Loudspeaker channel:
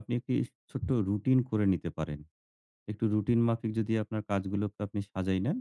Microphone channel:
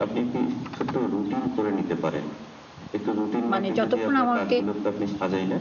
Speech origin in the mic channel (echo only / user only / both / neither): both